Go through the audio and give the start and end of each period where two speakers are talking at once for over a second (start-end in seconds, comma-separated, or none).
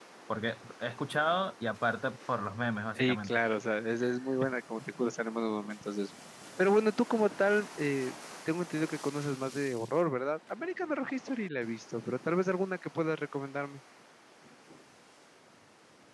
none